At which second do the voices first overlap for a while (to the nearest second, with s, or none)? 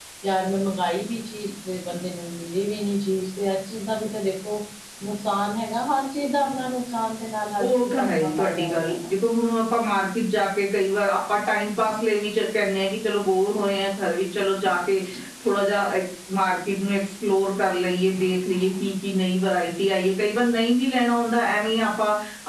8 s